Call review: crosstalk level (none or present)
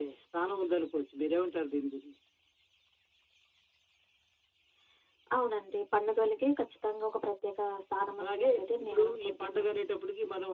present